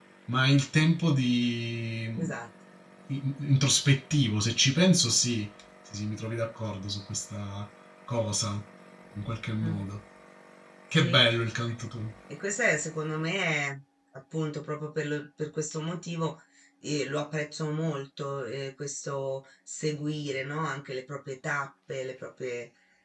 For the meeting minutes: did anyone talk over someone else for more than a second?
No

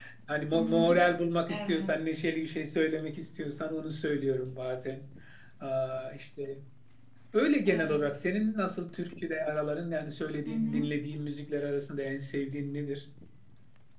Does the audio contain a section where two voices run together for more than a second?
No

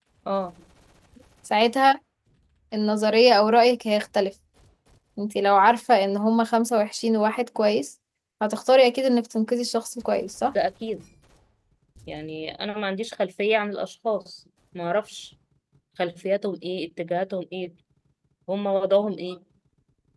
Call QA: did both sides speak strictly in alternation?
Yes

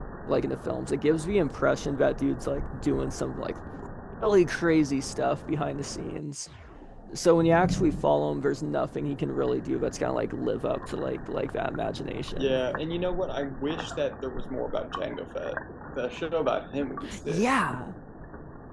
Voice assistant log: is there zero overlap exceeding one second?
Yes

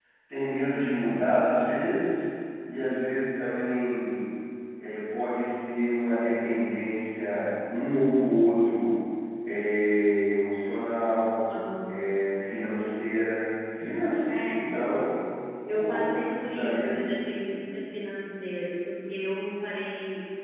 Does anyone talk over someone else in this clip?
Yes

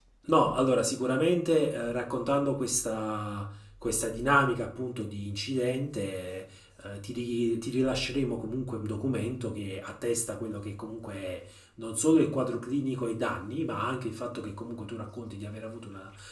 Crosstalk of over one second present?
No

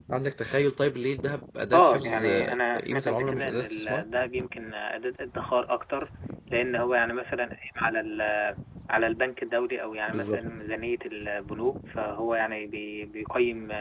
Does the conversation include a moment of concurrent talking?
Yes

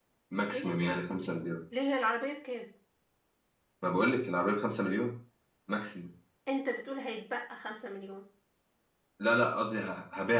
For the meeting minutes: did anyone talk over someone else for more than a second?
No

